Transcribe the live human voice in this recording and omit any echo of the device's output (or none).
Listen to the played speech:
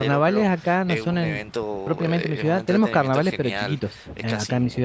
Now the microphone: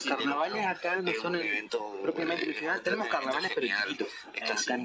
none